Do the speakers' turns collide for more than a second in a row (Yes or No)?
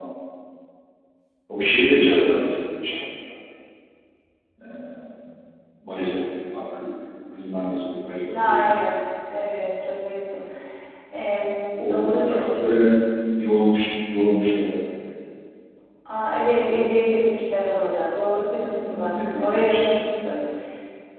Yes